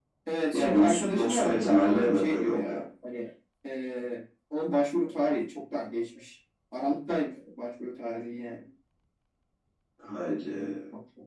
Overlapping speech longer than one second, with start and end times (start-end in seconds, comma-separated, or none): 0.5-2.8